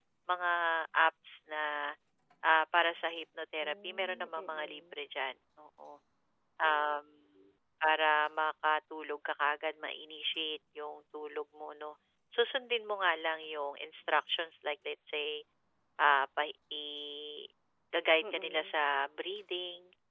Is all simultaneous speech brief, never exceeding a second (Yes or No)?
No